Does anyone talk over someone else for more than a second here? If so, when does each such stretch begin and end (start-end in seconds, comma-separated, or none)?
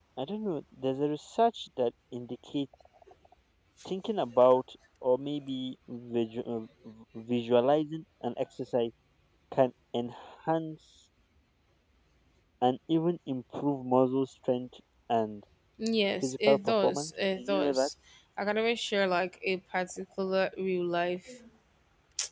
16.2-17.9